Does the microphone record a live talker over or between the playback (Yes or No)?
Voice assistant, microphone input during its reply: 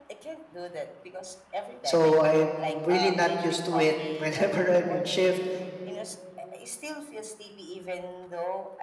Yes